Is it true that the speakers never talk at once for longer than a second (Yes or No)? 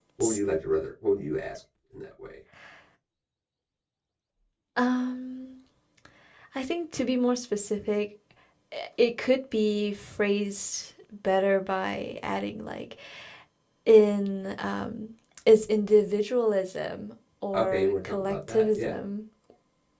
No